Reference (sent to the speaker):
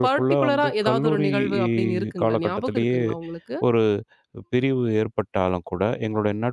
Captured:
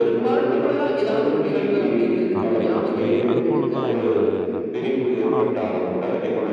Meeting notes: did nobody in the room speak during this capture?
No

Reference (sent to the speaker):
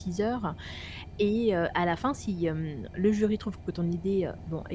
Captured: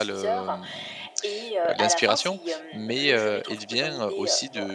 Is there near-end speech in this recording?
Yes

